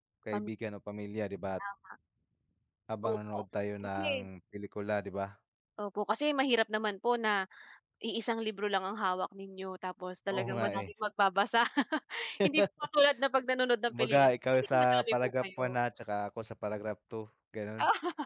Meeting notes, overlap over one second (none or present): present